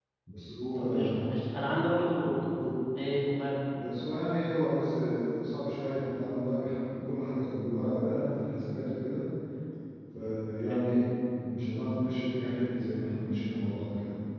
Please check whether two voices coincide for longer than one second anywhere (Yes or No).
No